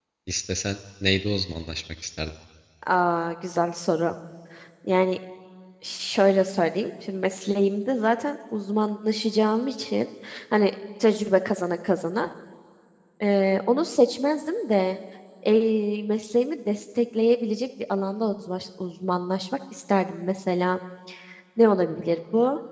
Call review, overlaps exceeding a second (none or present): none